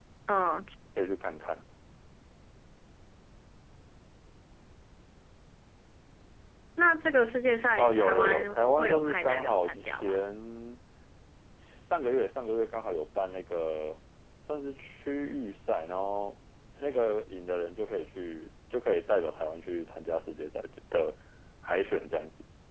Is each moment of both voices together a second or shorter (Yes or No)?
No